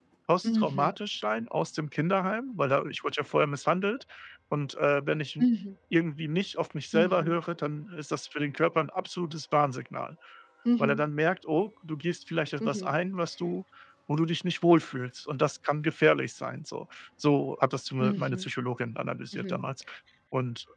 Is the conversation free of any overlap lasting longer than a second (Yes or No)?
Yes